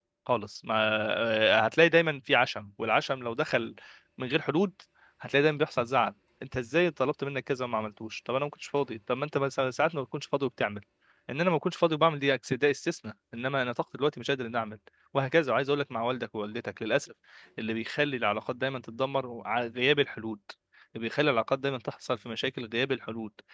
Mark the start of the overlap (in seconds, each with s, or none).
none